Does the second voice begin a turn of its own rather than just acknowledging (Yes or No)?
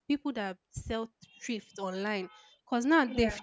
No